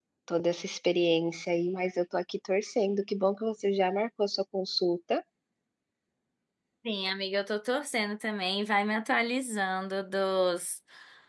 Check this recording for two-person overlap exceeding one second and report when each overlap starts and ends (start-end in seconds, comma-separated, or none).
none